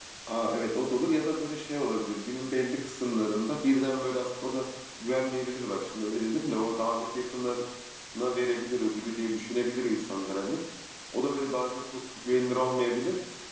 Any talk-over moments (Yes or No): No